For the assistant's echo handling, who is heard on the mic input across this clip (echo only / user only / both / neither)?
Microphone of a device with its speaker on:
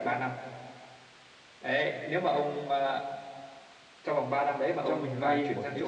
both